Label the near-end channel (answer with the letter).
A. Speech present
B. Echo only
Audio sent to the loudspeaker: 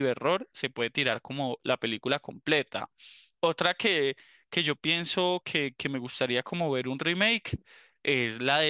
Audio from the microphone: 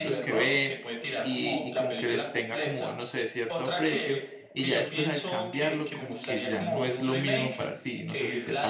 A